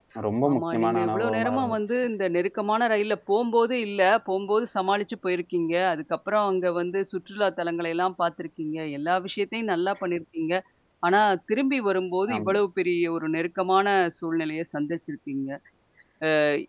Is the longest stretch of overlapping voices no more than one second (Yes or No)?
No